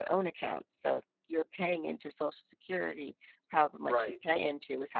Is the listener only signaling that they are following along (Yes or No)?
Yes